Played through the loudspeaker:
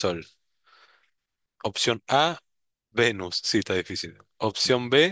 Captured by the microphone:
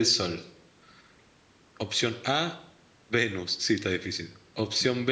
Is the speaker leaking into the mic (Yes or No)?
Yes